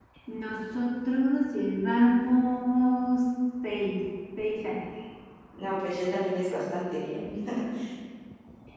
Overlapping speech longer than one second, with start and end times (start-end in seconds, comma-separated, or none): none